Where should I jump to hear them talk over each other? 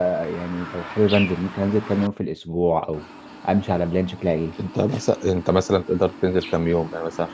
none

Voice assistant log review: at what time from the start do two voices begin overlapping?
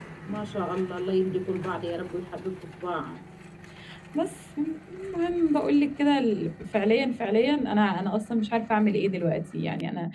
none

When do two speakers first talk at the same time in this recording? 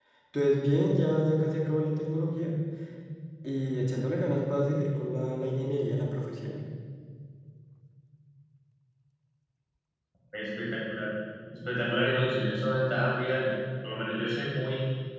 none

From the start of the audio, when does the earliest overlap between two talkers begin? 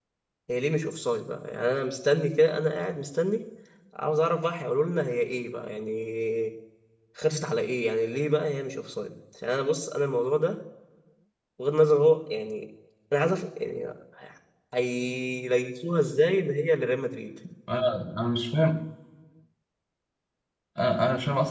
none

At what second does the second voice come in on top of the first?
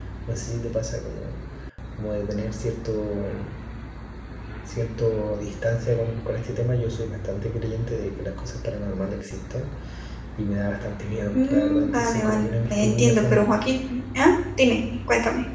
11 s

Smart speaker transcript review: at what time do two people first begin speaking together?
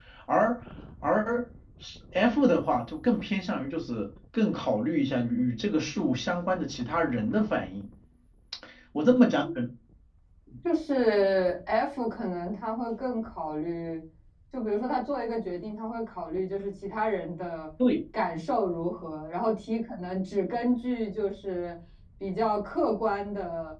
none

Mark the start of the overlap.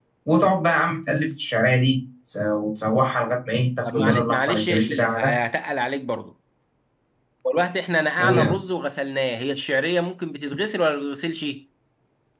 4 s

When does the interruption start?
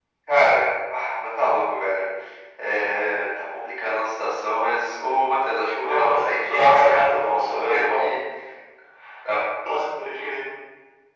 6 s

